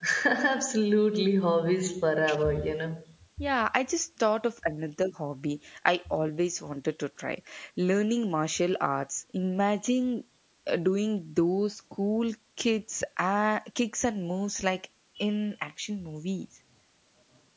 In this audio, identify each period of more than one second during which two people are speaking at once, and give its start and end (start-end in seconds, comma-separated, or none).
none